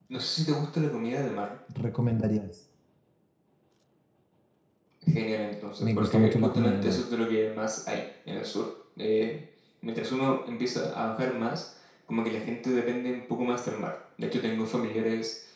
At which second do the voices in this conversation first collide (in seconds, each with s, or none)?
5.8 s